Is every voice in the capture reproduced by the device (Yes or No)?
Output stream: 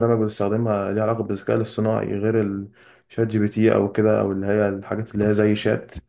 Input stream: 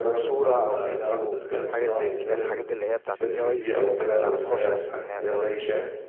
No